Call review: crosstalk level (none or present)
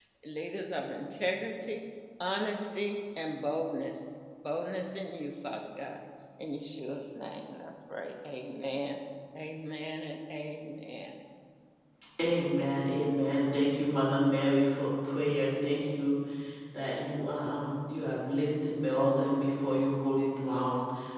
none